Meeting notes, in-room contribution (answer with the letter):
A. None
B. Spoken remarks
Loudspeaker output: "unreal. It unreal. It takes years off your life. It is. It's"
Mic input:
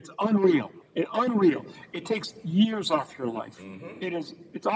B